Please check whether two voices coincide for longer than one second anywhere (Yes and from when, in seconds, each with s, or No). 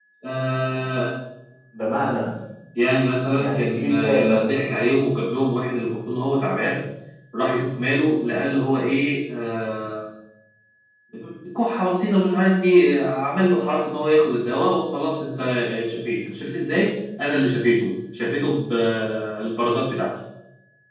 Yes, from 3.3 s